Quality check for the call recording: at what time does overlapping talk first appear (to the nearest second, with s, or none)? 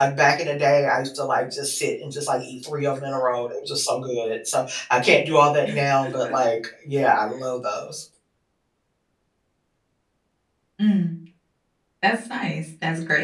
none